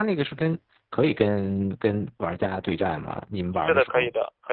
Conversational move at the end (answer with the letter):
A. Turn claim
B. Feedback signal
A